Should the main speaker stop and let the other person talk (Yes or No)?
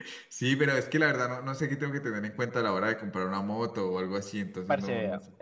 Yes